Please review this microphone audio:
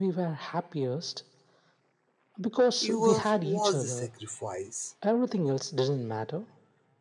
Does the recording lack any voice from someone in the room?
No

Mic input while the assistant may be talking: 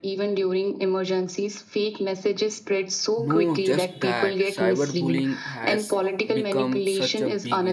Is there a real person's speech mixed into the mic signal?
Yes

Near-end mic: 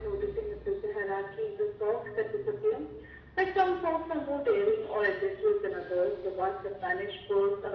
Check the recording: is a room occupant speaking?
No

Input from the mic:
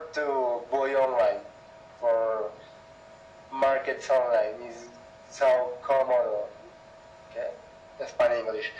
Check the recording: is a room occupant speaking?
No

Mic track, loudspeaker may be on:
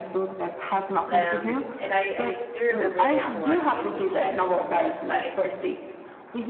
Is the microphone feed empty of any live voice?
No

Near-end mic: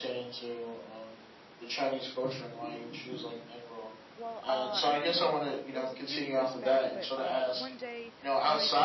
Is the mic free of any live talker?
No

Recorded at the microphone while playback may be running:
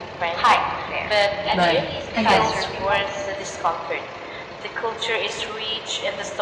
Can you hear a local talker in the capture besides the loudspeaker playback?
Yes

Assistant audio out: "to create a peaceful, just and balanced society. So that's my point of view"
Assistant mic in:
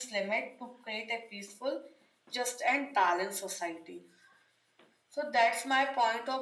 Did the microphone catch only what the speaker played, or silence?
Yes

